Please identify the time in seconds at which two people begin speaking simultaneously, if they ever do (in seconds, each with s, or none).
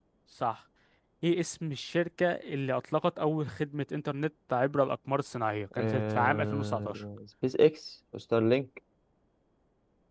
5.7 s